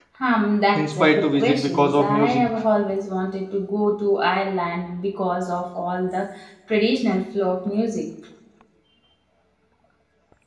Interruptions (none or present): present